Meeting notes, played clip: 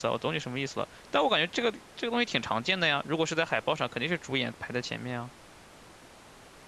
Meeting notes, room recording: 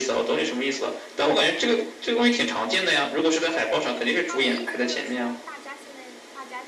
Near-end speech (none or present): present